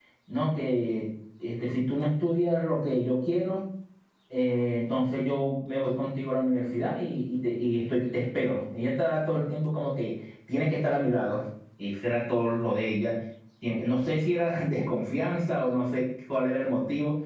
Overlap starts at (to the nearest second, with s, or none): none